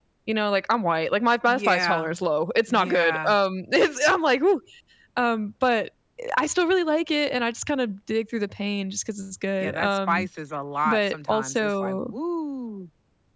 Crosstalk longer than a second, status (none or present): present